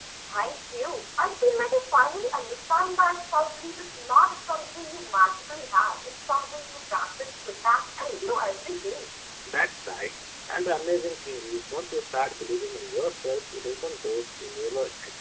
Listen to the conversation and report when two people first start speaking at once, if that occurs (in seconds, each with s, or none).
none